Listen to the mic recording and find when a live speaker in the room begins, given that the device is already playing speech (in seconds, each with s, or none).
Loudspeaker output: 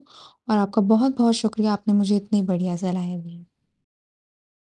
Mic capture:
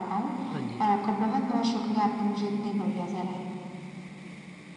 0.5 s